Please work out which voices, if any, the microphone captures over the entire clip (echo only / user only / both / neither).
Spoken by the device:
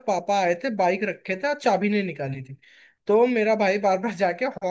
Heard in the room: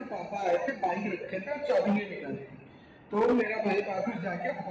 echo only